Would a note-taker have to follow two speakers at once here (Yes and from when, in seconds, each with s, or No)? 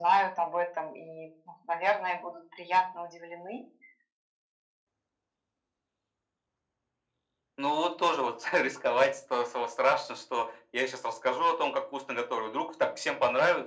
No